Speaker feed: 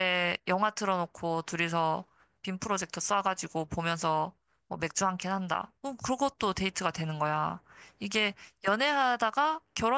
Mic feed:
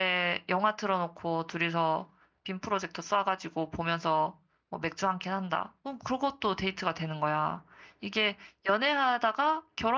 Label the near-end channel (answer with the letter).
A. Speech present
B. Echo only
B